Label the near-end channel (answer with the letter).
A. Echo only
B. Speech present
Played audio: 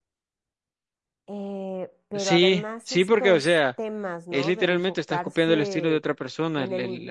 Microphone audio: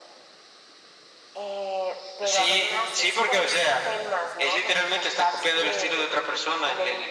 A